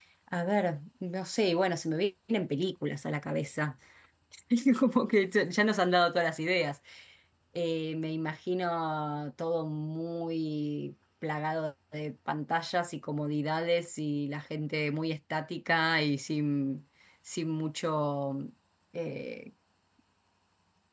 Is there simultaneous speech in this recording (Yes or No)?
No